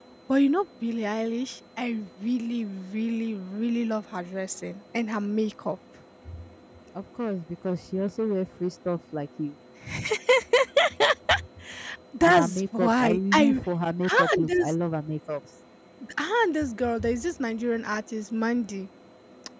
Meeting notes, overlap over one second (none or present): present